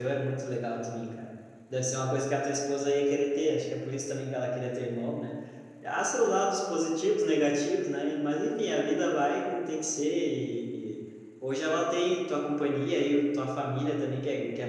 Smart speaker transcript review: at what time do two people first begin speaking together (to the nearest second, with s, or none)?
none